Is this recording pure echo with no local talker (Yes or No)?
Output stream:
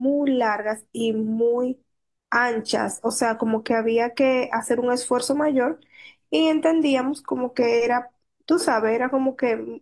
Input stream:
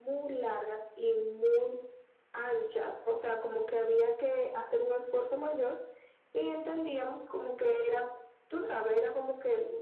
Yes